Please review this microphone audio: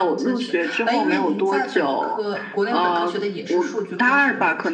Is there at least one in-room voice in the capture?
Yes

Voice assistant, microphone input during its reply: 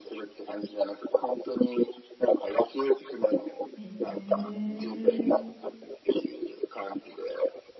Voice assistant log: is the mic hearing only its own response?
No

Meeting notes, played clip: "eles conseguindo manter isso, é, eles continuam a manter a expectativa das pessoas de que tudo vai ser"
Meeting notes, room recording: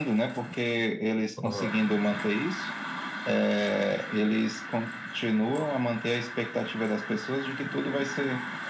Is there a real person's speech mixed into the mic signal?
Yes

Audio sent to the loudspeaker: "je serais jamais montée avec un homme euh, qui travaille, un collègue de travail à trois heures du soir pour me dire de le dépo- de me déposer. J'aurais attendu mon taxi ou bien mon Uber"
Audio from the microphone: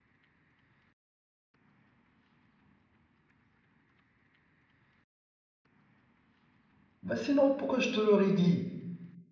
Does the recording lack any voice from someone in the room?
No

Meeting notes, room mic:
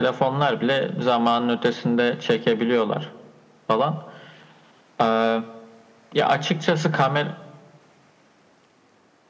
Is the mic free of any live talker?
Yes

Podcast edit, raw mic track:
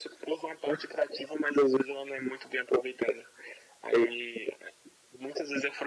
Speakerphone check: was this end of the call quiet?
Yes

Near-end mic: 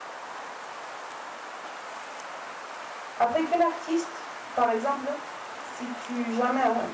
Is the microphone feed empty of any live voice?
No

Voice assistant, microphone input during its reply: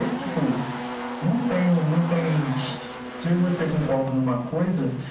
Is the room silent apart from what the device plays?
Yes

